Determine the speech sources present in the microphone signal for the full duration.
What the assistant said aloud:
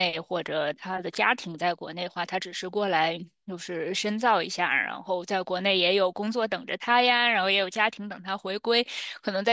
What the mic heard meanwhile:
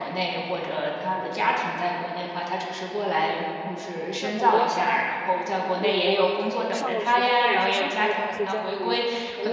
both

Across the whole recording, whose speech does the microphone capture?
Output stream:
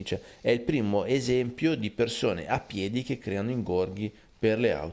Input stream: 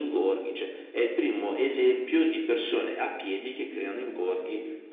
echo only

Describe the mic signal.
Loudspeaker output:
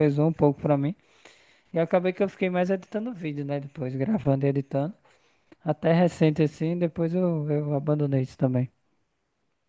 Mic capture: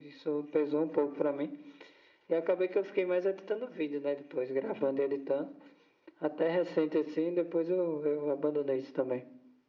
echo only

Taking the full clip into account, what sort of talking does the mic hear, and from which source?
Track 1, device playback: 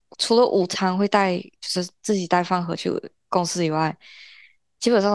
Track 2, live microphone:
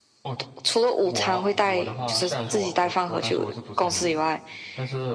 both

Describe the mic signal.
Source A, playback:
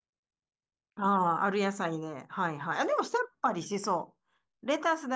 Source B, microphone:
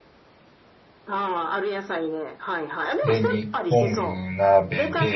both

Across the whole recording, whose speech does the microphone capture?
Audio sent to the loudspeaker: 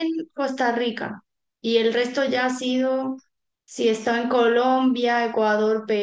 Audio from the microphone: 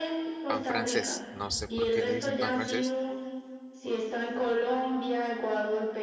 both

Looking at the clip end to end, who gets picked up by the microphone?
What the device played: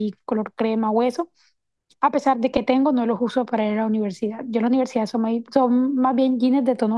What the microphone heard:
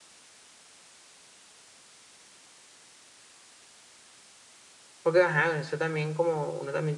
user only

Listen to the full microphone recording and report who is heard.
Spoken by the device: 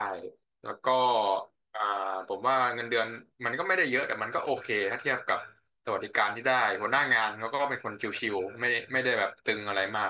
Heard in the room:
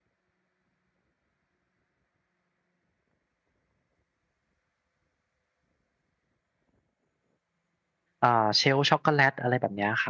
user only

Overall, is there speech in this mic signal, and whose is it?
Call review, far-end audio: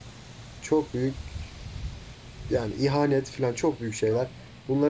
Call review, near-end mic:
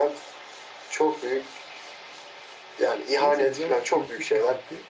both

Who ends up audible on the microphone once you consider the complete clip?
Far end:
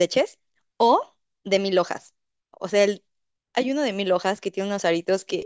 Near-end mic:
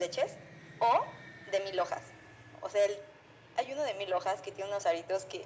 echo only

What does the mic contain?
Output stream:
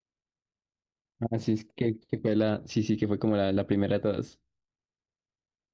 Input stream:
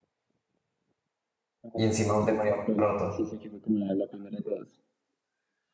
both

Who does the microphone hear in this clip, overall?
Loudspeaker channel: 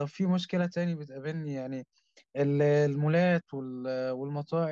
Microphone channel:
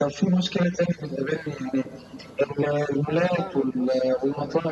both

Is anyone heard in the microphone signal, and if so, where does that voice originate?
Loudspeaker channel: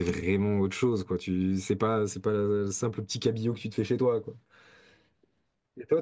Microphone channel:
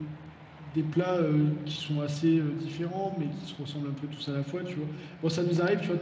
user only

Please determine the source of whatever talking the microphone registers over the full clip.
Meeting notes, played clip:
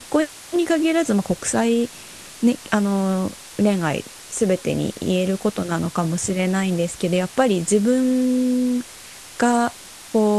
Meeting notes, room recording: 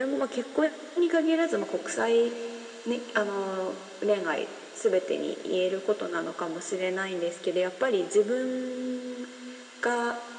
echo only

